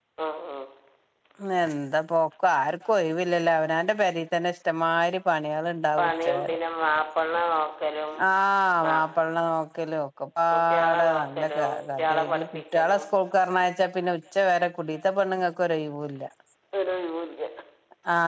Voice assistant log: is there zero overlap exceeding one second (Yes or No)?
No